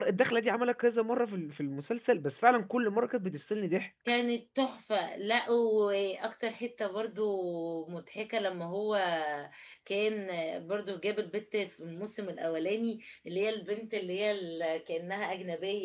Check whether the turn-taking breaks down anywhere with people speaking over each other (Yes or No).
No